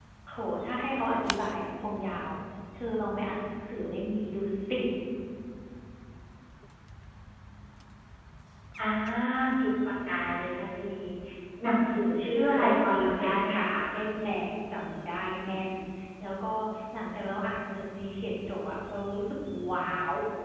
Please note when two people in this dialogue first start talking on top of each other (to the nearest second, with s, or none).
12 s